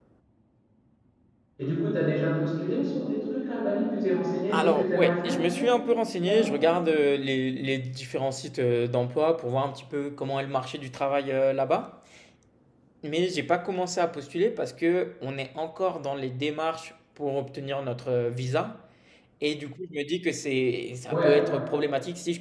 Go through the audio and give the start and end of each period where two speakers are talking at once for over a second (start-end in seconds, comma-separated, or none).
4.5-5.7